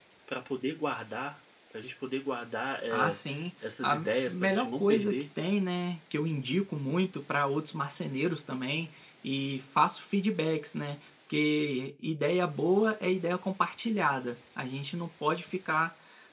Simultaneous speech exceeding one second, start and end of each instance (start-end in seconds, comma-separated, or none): 3.8-5.2